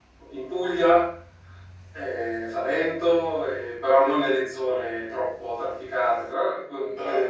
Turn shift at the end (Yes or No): Yes